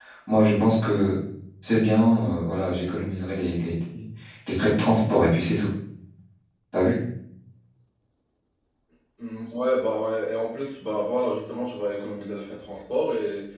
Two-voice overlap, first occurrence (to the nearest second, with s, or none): none